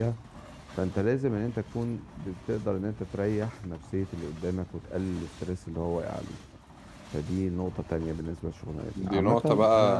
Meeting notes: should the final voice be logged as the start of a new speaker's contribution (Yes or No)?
Yes